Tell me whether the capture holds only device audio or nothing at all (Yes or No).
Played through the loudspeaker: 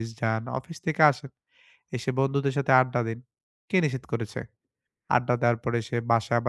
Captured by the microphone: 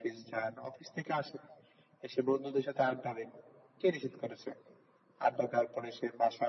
Yes